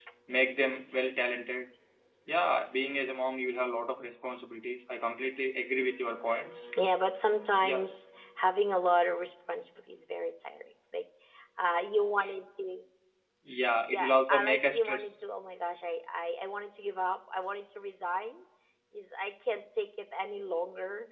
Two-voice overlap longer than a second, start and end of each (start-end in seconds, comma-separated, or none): 13.9-15.1